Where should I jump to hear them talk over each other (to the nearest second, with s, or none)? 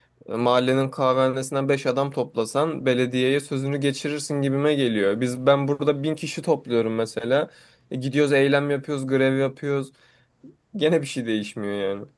none